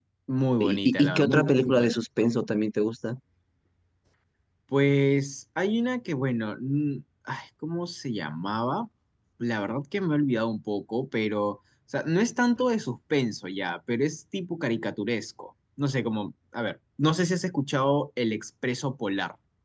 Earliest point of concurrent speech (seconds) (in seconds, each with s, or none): 0.6 s